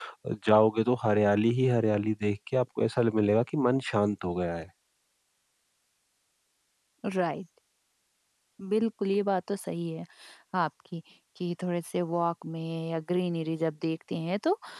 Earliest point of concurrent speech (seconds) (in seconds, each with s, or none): none